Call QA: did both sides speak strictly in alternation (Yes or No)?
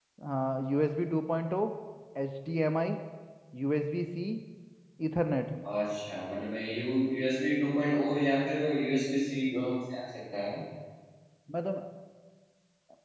Yes